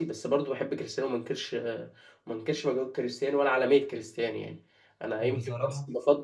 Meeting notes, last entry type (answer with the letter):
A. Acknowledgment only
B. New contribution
A